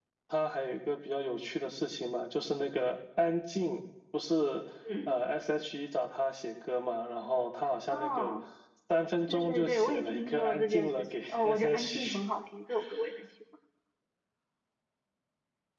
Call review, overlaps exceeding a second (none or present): present